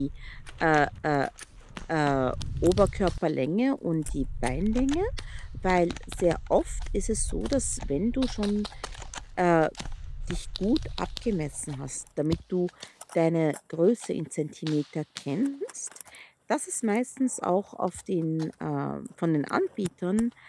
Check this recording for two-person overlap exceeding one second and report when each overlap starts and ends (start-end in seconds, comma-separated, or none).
none